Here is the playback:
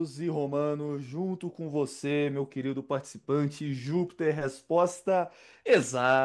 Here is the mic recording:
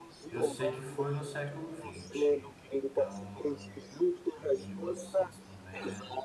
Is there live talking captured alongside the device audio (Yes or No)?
Yes